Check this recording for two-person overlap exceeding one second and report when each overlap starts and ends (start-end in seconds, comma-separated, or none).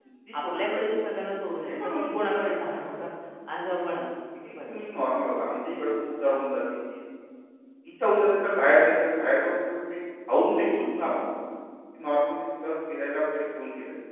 1.7-3.0